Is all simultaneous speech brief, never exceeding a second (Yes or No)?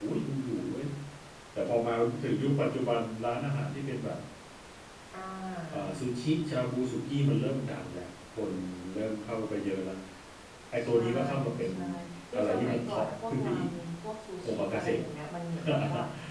No